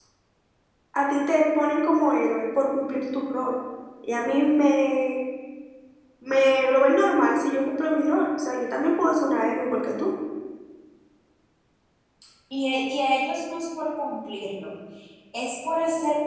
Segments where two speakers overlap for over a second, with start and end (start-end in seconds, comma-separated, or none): none